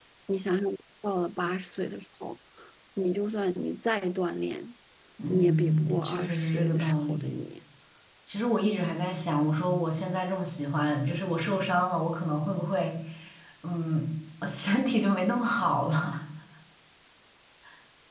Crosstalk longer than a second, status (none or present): present